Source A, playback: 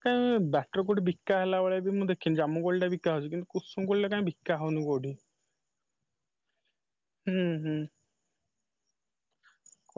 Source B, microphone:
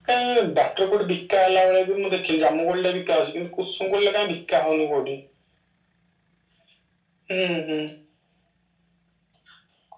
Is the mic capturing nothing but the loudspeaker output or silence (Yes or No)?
Yes